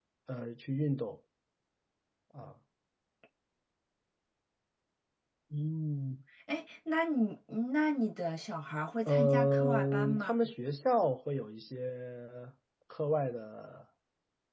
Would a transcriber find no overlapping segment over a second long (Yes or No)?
No